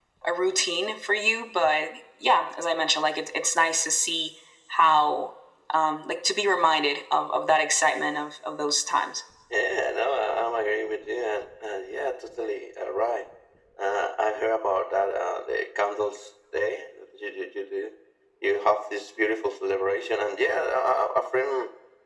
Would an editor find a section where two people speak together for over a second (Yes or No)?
No